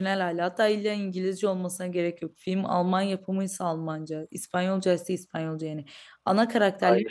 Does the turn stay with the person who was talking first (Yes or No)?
Yes